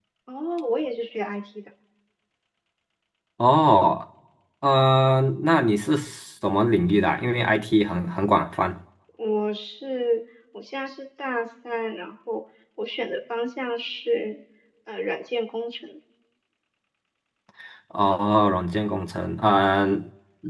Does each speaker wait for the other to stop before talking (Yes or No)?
Yes